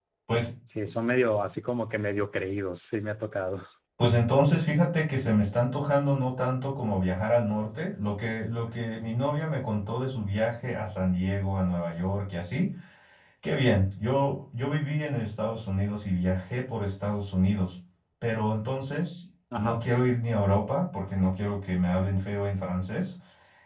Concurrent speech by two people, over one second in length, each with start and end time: none

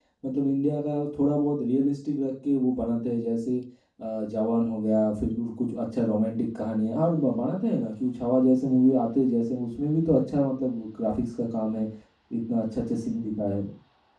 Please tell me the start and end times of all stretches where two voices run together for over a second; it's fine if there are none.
none

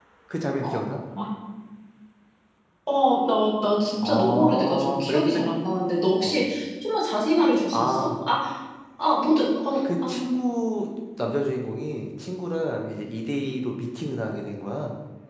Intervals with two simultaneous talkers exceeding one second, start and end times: 4.0-5.4

